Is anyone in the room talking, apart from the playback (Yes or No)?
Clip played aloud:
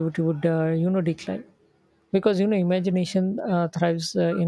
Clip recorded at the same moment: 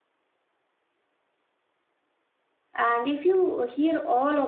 Yes